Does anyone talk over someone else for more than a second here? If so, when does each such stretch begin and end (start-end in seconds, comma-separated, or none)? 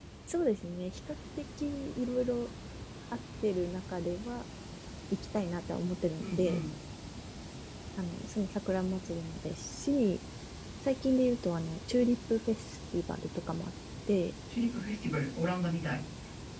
none